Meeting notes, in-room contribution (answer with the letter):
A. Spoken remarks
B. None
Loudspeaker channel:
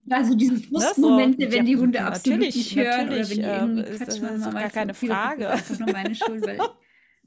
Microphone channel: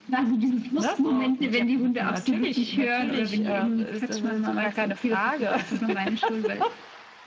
B